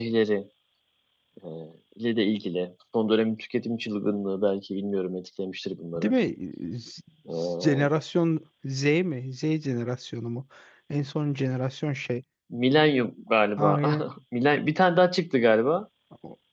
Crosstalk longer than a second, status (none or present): none